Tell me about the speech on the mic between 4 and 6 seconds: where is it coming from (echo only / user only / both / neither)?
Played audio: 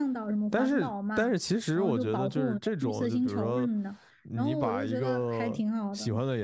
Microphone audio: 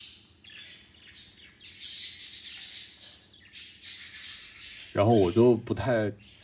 user only